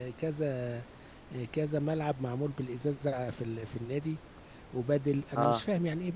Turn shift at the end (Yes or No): No